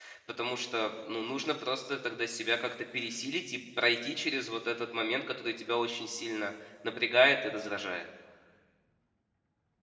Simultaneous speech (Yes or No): No